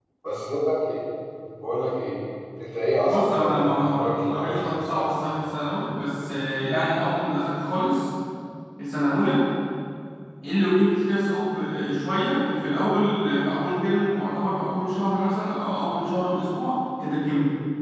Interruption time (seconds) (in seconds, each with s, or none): 3.1 s